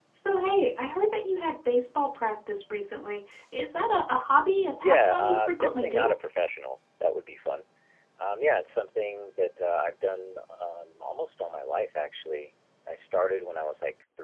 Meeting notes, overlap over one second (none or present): present